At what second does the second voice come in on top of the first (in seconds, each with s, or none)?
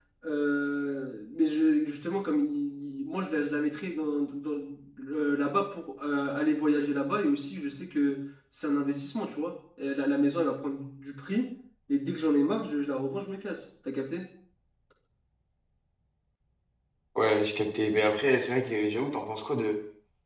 none